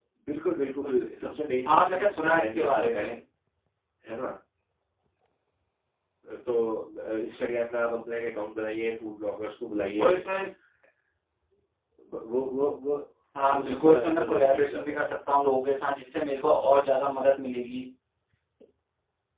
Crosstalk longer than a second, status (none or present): present